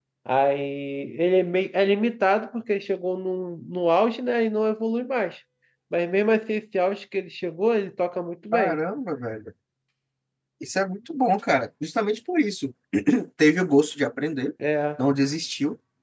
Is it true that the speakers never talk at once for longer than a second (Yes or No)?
Yes